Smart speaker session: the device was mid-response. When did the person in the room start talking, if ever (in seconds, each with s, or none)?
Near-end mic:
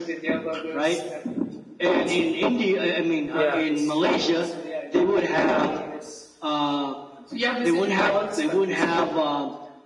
3.3 s